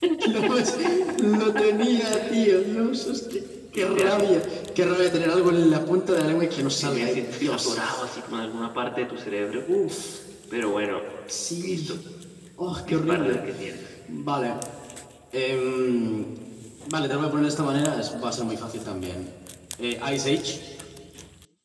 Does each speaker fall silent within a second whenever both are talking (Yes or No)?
No